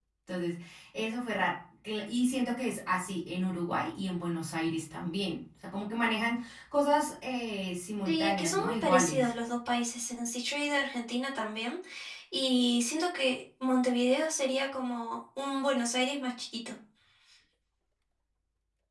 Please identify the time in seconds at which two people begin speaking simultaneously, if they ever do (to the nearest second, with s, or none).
8 s